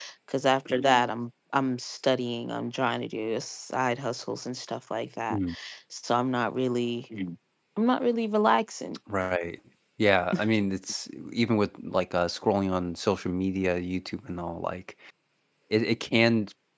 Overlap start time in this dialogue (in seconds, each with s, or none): none